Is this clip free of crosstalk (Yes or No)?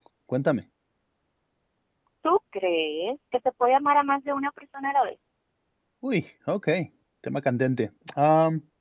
Yes